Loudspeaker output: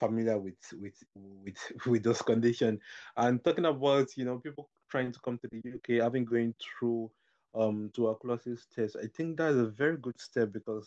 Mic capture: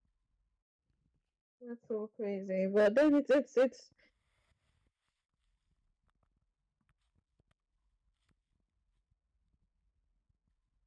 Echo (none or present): none